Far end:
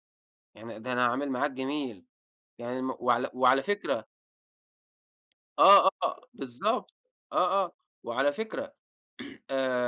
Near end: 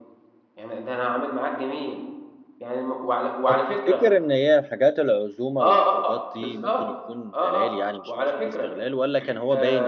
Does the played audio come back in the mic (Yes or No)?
Yes